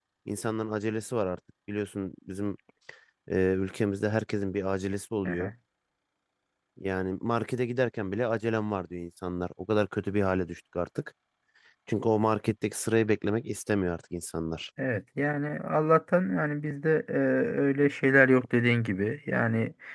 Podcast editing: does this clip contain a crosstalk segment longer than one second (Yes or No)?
No